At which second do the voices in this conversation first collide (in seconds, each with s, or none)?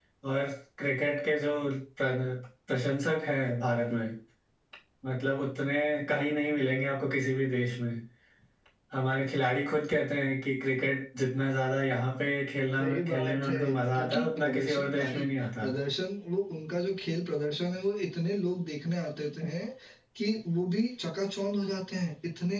12.8 s